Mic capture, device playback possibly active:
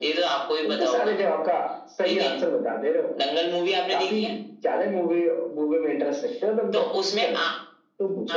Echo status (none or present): present